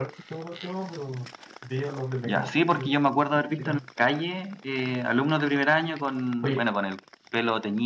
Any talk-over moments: Yes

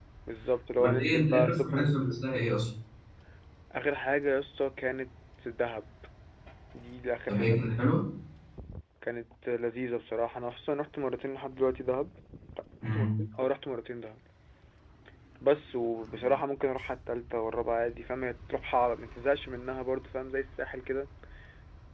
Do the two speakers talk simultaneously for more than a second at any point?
Yes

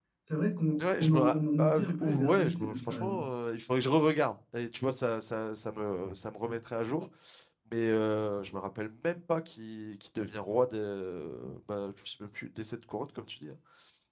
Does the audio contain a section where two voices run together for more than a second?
Yes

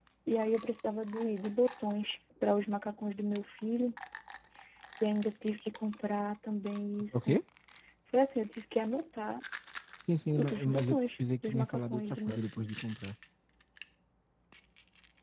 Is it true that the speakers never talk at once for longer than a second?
No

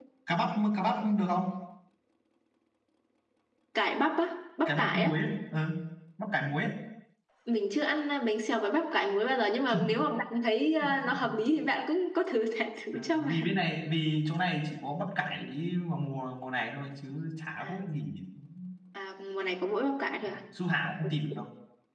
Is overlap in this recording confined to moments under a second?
Yes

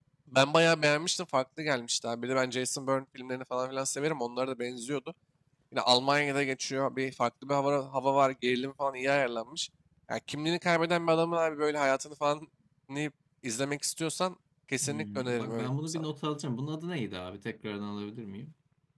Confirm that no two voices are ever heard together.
No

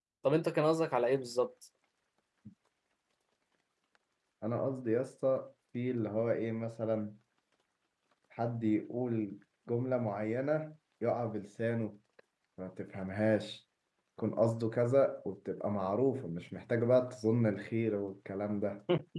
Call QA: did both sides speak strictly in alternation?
Yes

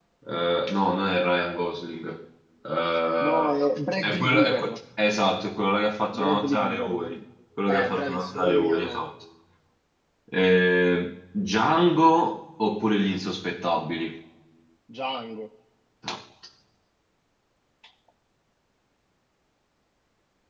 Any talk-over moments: Yes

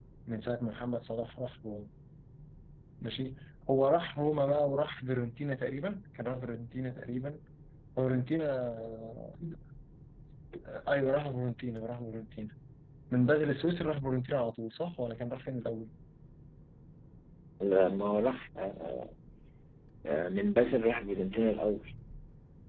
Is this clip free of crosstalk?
Yes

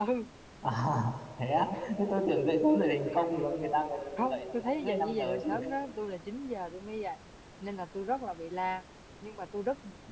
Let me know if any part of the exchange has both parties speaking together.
Yes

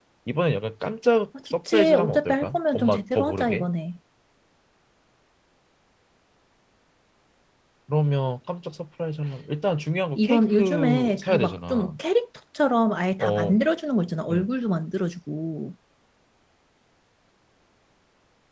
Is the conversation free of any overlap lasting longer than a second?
No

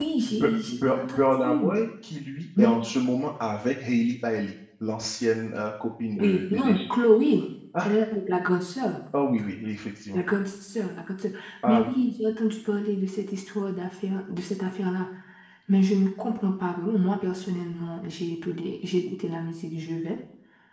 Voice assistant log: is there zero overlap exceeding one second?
No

